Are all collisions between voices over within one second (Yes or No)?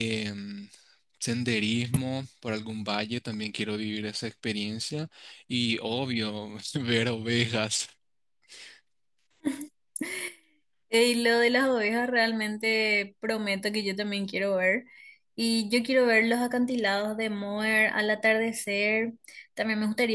Yes